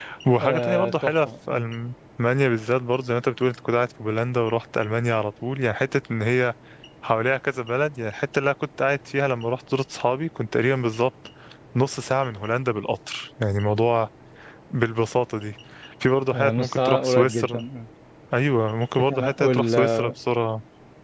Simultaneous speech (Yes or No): Yes